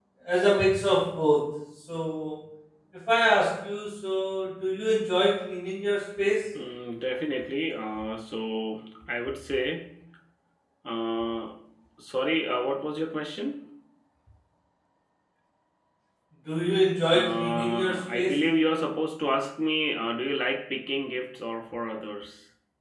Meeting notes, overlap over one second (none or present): present